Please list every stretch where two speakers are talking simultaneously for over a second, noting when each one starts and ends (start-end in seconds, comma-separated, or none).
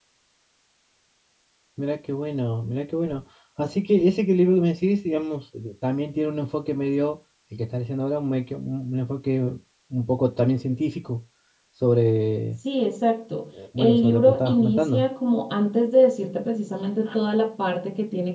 13.8-15.0